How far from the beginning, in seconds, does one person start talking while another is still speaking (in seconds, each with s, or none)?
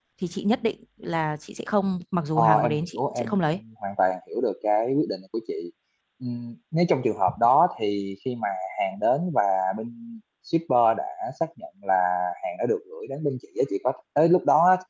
2.4 s